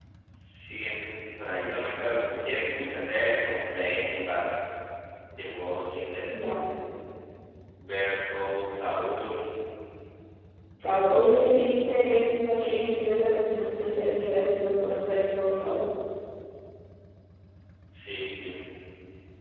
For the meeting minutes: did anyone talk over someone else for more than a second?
No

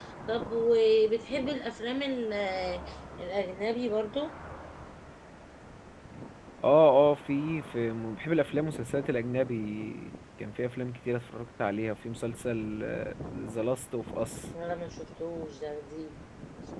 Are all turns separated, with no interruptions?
Yes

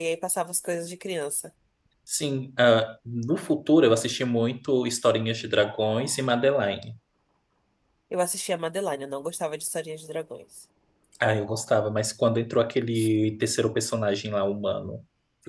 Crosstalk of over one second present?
No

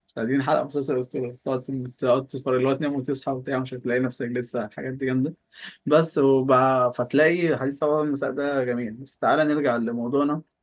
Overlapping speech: No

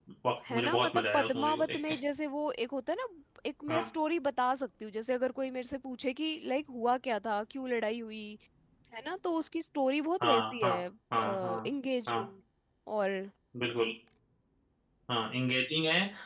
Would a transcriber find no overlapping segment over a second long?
No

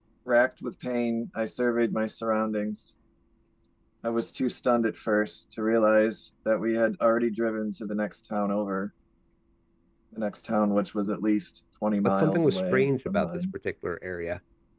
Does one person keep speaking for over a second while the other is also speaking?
Yes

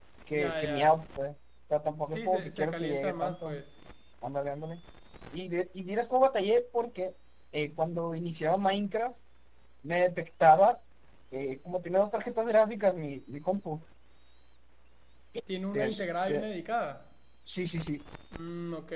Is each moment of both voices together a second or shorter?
No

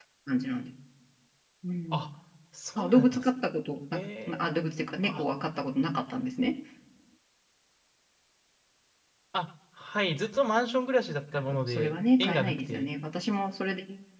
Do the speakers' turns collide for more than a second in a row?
Yes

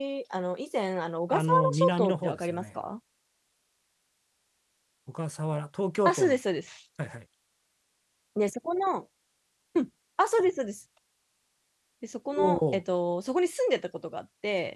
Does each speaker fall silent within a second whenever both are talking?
No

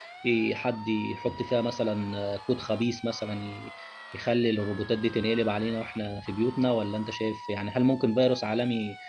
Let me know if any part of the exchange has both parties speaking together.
No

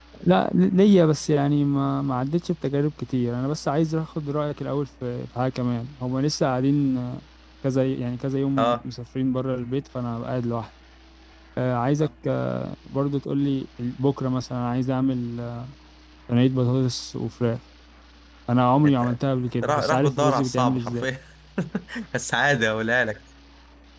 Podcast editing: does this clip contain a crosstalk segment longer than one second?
Yes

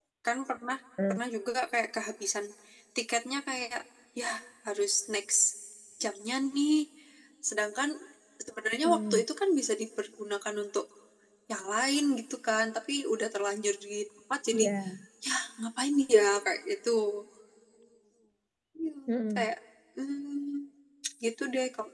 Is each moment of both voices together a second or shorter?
Yes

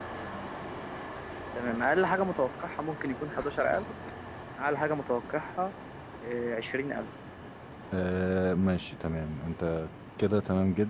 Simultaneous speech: No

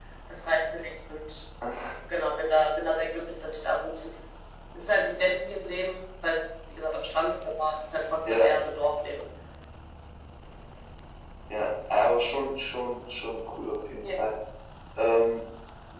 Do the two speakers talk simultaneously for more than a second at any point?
No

